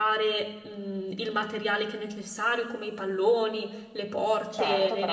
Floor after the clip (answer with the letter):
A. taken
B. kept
B